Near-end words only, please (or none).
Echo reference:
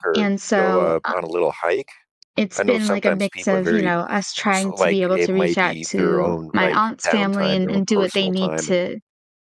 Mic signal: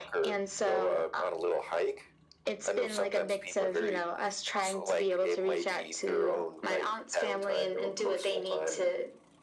none